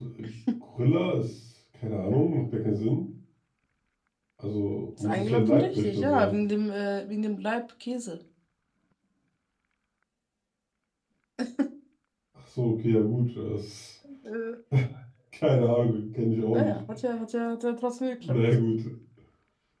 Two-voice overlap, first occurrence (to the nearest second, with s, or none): 5 s